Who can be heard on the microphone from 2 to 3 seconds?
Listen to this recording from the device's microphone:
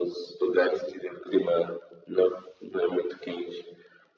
echo only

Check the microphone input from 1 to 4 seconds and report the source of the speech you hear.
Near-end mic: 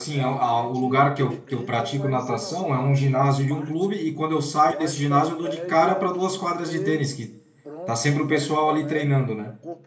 both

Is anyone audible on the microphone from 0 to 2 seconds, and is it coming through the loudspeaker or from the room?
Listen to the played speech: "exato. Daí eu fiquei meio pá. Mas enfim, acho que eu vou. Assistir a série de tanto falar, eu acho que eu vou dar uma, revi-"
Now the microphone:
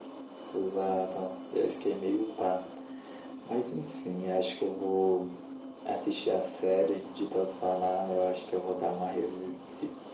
echo only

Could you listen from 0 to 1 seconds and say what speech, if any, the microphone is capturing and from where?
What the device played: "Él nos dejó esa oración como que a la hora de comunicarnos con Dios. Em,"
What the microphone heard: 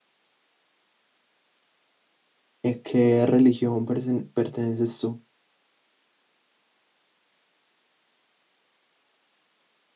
neither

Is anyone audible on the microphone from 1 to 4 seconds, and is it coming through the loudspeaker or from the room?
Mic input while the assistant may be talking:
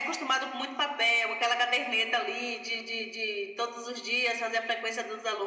echo only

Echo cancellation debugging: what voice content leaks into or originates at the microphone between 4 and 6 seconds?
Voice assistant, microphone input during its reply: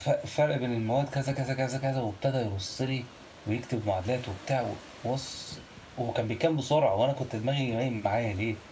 user only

